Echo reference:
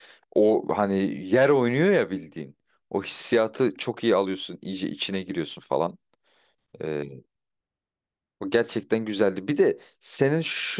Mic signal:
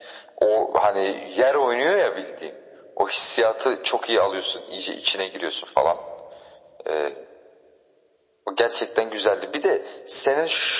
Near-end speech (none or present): none